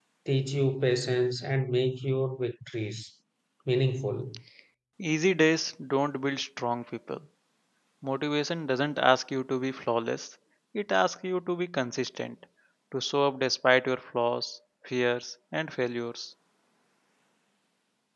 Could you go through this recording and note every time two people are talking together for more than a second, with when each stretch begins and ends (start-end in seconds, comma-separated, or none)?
none